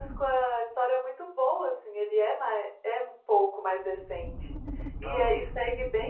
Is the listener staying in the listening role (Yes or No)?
Yes